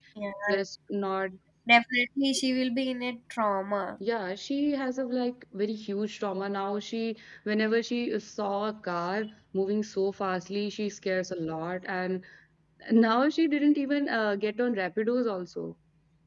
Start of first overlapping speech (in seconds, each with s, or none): none